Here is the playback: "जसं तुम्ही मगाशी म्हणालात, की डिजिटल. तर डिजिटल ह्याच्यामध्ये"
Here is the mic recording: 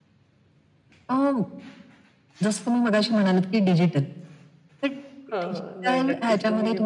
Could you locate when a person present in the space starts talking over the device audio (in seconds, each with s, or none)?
5.3 s